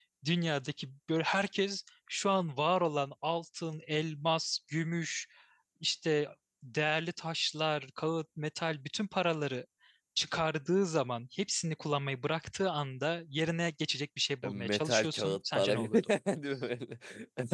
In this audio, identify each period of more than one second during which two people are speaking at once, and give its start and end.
14.4-15.9

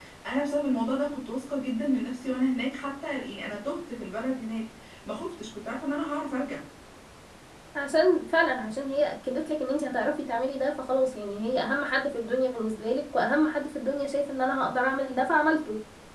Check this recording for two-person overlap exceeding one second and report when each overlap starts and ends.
none

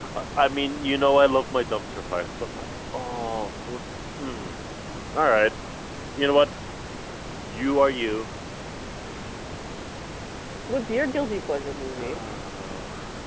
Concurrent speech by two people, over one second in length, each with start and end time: none

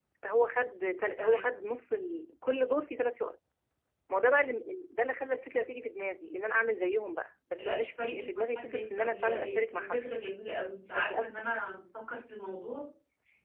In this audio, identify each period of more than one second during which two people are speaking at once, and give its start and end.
7.6-10.0

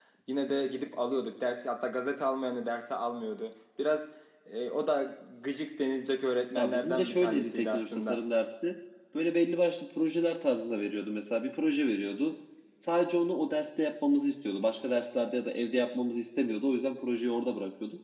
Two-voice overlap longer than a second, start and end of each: 6.6-8.2

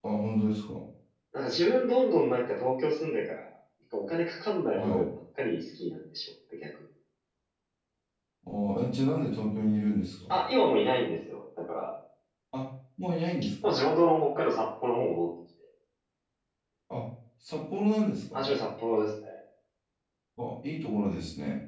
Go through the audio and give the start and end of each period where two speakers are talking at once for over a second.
none

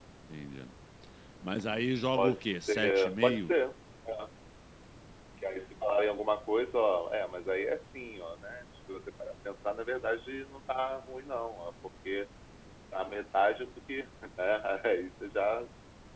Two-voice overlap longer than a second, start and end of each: 2.2-3.5

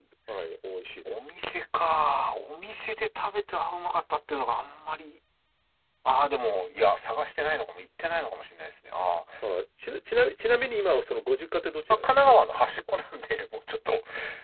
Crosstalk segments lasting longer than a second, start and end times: none

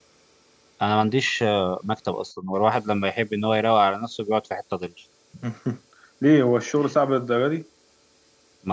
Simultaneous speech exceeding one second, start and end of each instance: none

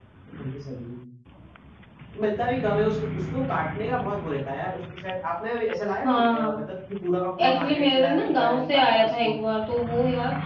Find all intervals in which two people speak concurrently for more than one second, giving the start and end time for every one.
7.5-9.4

